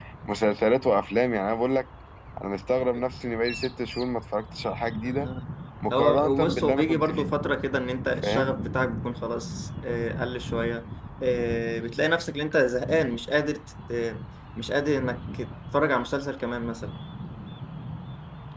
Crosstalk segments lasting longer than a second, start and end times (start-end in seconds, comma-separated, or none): 5.9-7.3